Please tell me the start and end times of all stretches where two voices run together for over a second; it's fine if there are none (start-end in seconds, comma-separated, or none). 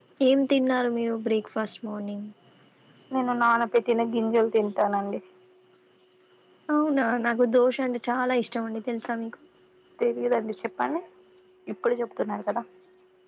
none